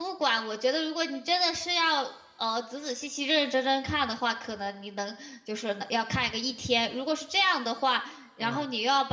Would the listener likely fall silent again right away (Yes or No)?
Yes